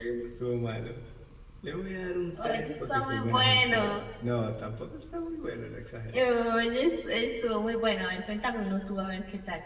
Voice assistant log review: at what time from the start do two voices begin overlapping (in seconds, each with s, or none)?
2.4 s